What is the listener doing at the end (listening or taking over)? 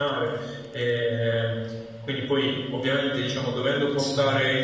listening